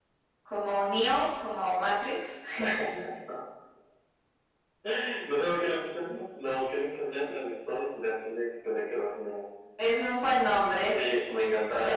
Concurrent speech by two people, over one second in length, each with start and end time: none

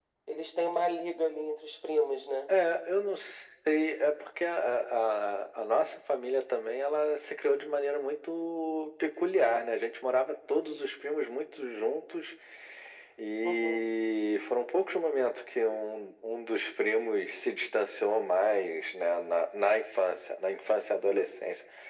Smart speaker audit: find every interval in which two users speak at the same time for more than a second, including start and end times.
none

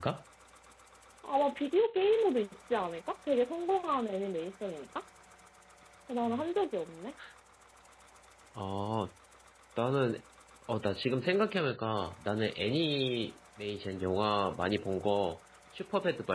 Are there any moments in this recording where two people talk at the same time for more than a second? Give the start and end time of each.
none

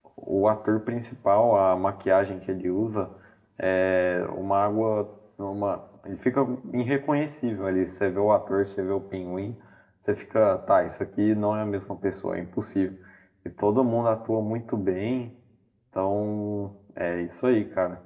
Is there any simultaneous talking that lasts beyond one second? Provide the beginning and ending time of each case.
none

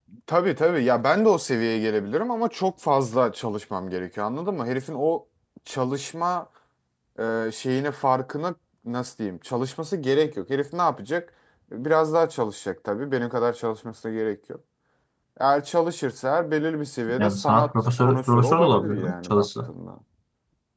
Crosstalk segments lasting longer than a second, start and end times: 17.2-19.7

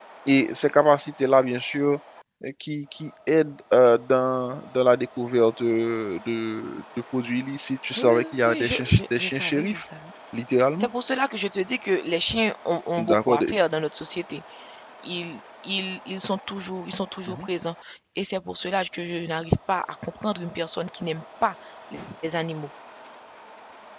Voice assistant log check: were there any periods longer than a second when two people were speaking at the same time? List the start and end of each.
8.0-9.8

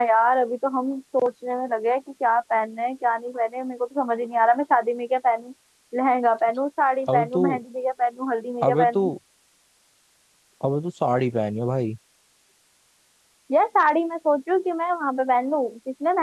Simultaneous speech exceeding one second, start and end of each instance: none

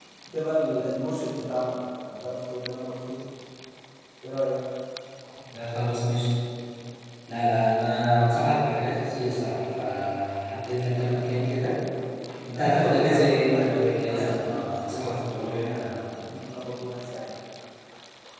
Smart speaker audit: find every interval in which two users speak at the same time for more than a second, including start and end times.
12.5-15.7

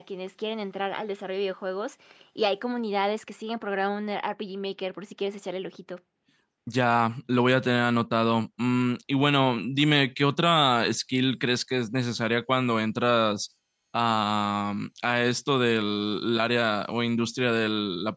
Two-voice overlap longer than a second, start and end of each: none

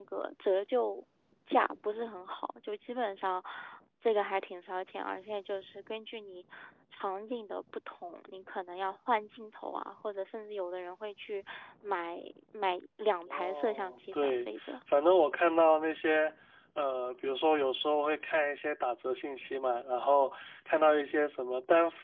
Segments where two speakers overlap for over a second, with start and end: 13.3-14.7

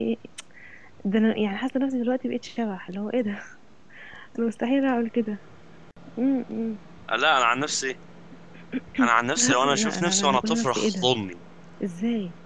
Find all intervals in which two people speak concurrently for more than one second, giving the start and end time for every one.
9.4-11.1

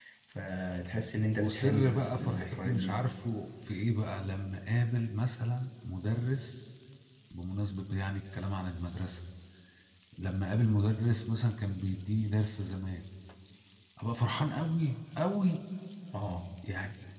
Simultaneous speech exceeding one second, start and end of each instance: 1.4-3.1

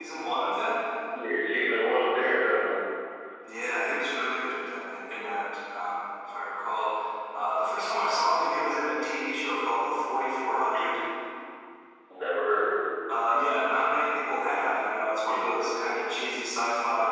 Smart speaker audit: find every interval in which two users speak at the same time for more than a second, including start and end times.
none

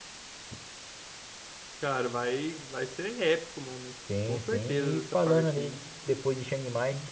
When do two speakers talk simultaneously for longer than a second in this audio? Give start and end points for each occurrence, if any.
4.3-5.8

